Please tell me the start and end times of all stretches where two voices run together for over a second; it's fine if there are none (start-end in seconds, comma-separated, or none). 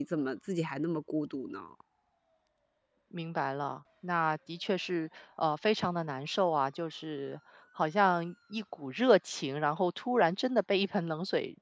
none